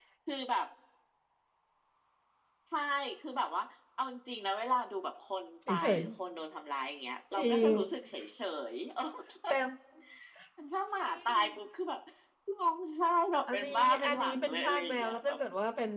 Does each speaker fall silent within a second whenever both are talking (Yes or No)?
No